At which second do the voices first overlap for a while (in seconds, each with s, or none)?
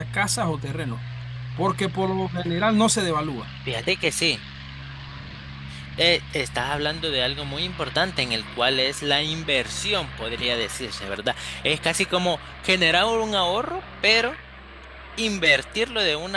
none